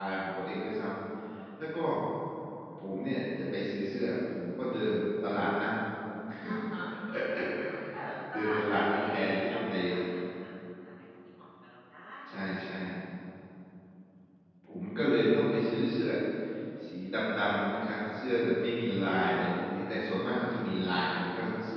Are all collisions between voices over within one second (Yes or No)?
No